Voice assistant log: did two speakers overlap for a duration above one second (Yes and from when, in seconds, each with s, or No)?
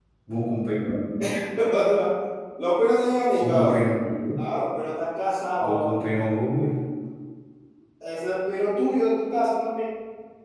No